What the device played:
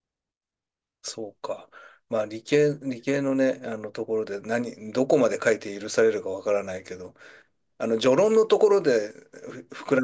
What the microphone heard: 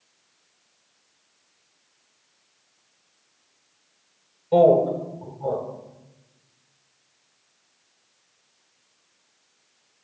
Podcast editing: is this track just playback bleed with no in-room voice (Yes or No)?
No